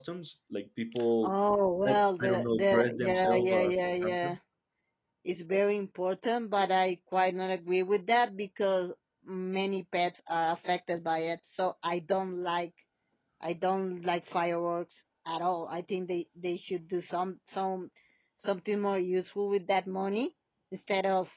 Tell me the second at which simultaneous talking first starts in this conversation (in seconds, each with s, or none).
1.8 s